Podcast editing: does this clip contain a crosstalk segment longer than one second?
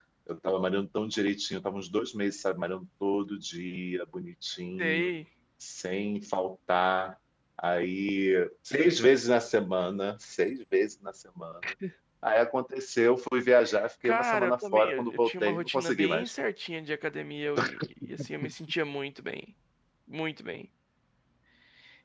Yes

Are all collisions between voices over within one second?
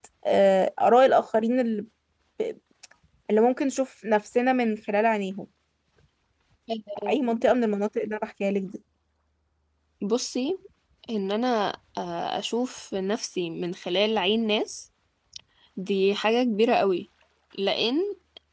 Yes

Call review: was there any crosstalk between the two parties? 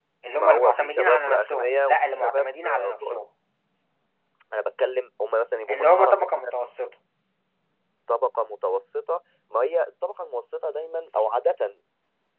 Yes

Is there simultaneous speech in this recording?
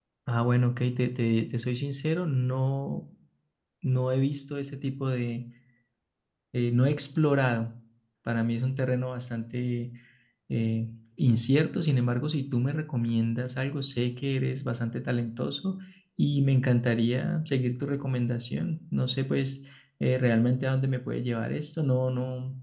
No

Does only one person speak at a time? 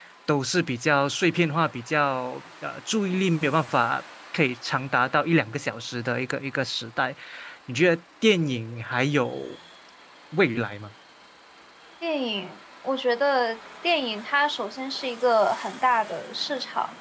Yes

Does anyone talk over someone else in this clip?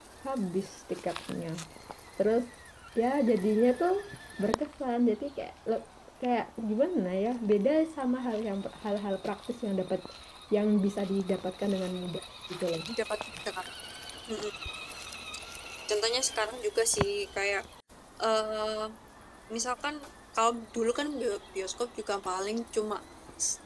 No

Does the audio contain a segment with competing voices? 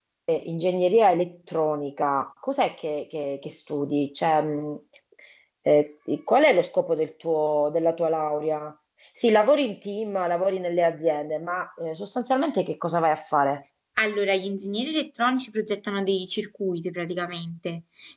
No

